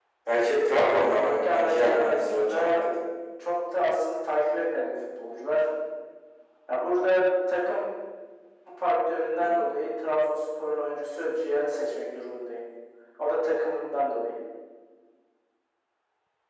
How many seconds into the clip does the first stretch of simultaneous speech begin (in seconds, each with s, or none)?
1.2 s